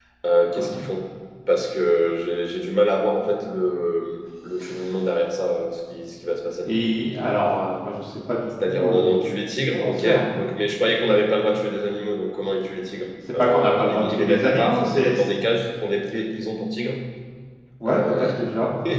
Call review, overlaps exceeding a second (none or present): present